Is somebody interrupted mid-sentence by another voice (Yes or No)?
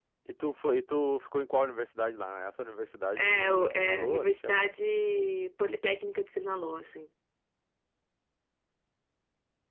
Yes